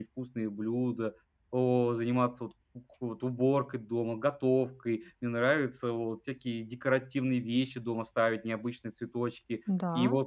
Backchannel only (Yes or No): Yes